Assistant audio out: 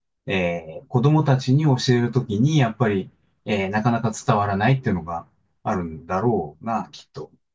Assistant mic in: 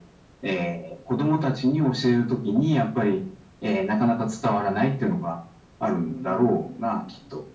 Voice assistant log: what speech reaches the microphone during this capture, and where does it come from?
both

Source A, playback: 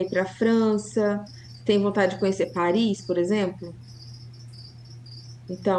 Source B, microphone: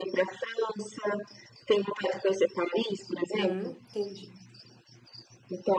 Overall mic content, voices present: both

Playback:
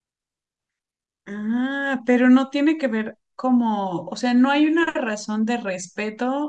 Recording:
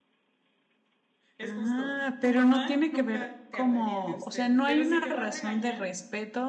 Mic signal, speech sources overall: both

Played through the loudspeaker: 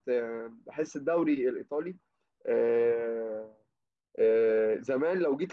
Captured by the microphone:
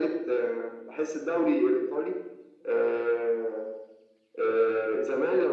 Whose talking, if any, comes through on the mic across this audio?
echo only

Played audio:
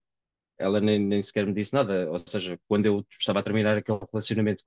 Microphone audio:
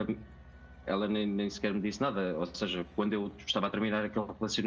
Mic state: echo only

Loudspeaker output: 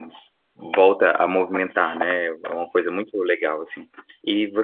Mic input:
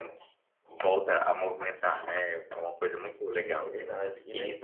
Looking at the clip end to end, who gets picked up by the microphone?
both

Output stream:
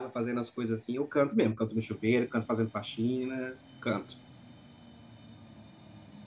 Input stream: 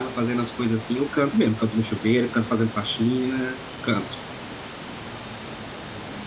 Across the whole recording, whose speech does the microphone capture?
echo only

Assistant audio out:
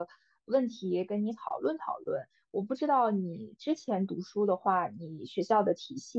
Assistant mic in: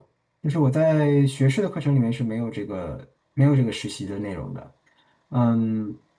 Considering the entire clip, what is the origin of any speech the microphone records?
user only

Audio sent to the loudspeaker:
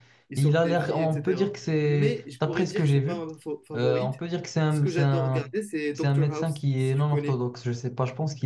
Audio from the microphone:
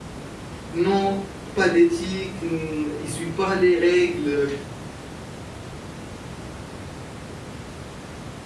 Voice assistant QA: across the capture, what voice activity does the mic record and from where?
user only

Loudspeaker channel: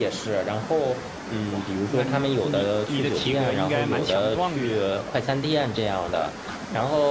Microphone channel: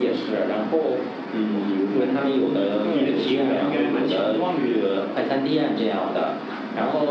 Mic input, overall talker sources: both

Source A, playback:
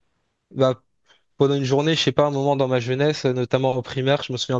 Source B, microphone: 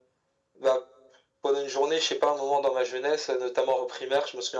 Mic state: echo only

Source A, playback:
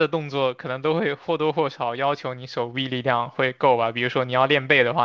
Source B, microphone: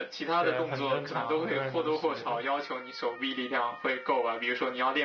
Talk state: both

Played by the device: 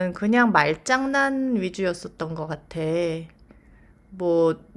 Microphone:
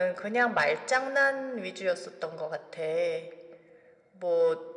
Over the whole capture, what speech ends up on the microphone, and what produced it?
echo only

